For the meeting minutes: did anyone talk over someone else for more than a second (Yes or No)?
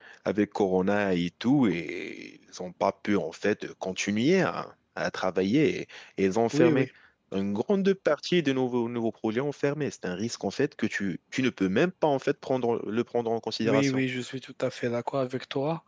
No